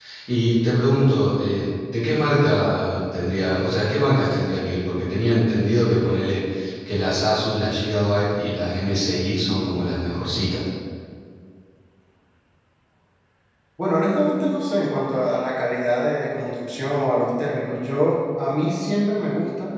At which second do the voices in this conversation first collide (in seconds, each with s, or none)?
none